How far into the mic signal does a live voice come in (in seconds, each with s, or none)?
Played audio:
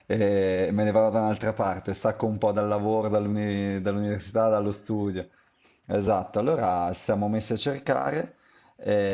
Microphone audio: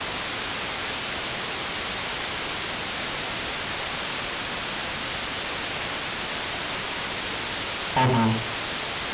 7.9 s